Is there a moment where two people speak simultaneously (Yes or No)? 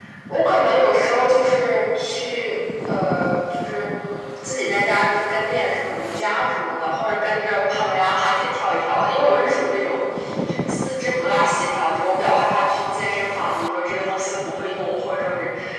No